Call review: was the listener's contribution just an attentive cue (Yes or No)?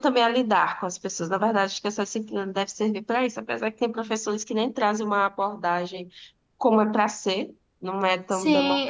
No